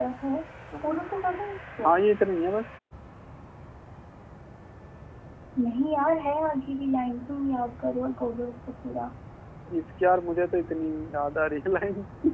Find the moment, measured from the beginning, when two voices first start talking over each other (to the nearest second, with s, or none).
none